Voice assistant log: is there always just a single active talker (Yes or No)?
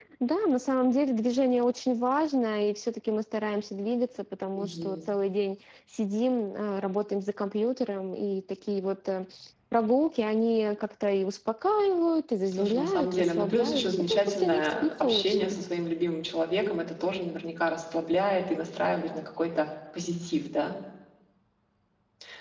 No